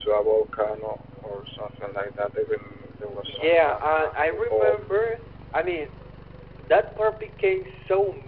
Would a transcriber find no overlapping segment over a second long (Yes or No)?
No